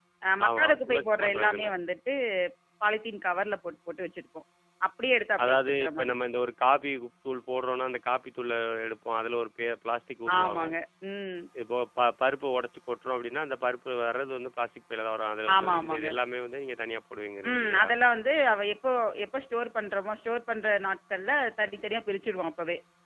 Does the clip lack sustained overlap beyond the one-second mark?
No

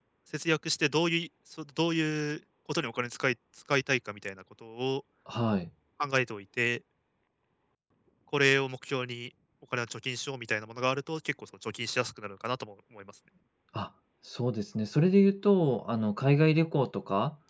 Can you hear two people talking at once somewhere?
No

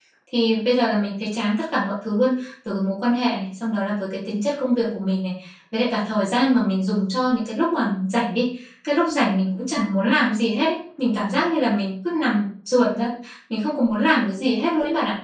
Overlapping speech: No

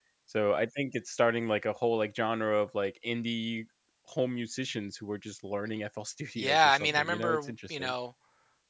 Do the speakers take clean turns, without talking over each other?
No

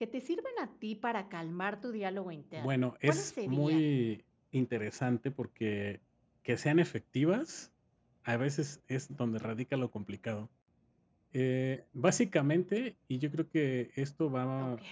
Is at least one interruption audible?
Yes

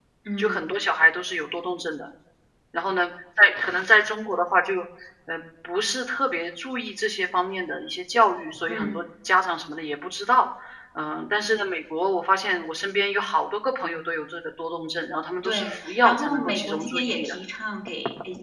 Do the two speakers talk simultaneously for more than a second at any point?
Yes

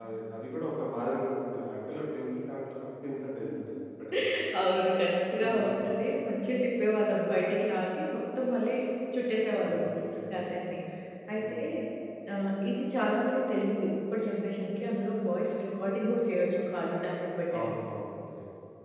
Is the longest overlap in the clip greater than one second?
No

